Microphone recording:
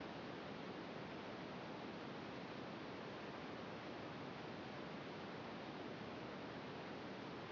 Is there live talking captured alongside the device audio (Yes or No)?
No